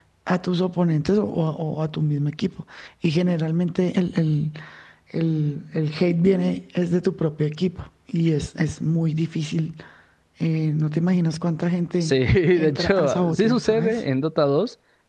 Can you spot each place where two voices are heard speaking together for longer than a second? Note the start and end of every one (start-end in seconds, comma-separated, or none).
12.6-14.0